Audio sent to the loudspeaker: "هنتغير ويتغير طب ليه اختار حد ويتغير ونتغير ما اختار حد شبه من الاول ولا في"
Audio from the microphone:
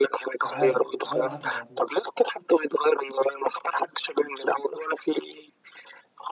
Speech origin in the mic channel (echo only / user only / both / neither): both